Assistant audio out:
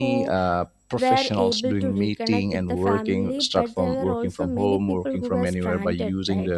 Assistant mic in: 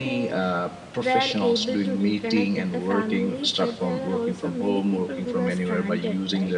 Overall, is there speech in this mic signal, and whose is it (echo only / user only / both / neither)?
echo only